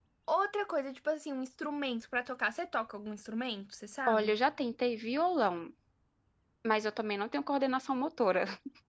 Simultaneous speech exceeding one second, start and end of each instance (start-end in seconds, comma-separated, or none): none